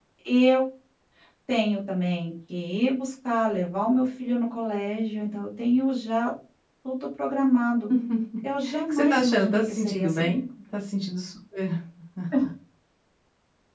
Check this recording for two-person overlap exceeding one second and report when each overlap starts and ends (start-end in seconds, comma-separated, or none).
8.9-10.4